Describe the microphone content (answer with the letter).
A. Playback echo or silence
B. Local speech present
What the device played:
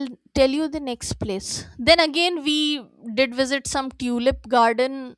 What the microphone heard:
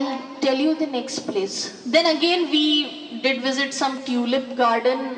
A